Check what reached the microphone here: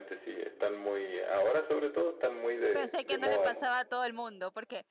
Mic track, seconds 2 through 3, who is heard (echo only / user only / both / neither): both